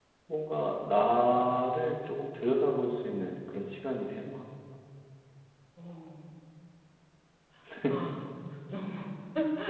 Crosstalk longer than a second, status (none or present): none